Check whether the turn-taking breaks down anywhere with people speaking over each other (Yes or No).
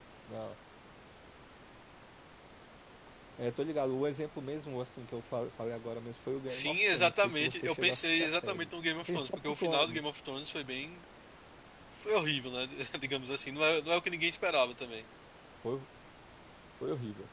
Yes